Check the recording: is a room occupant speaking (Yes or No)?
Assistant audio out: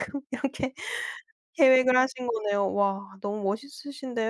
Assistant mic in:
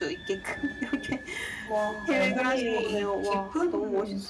Yes